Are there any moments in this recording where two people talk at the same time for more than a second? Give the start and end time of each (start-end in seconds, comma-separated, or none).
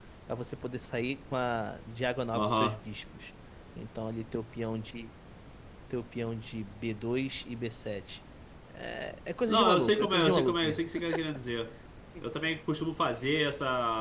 9.5-10.8